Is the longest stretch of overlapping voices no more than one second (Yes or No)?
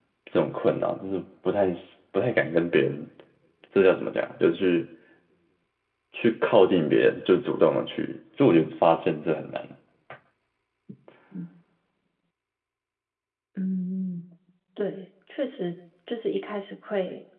Yes